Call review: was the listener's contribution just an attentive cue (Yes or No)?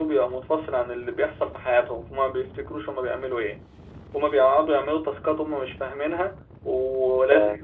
Yes